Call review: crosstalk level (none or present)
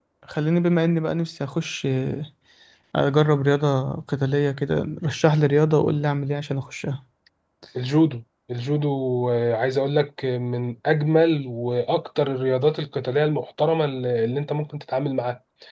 none